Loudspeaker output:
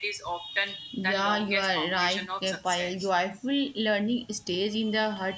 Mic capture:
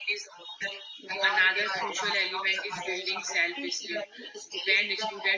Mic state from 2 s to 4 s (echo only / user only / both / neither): both